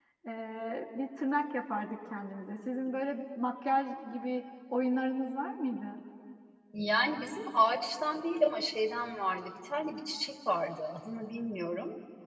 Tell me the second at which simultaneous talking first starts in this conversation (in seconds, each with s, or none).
none